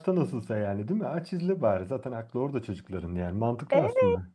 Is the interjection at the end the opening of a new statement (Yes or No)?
Yes